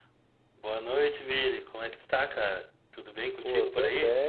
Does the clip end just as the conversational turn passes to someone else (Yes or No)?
Yes